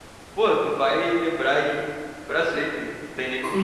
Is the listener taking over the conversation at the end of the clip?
Yes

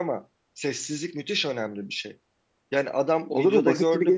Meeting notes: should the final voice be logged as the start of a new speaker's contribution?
Yes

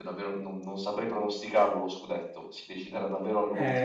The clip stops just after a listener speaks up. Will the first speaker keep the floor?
No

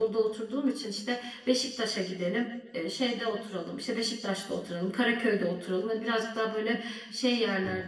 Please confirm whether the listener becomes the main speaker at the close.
No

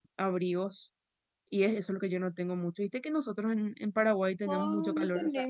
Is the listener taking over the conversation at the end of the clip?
Yes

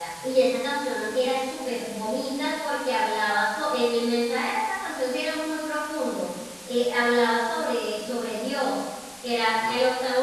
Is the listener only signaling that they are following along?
Yes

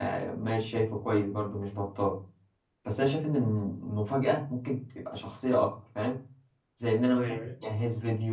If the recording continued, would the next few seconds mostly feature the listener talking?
No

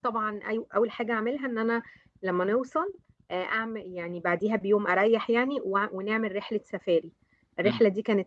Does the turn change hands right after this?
No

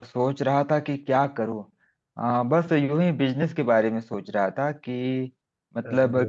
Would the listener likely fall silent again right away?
Yes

